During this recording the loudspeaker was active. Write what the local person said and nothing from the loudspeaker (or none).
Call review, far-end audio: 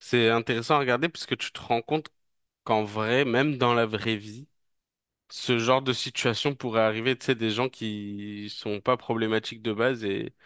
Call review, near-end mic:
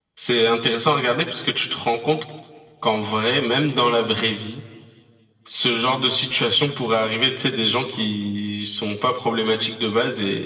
none